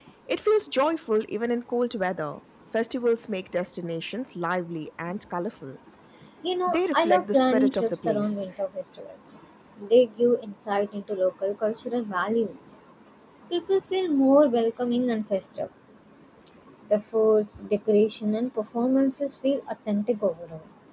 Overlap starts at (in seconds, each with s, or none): 6.7 s